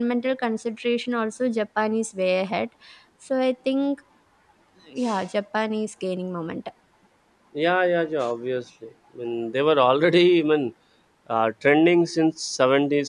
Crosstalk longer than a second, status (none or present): none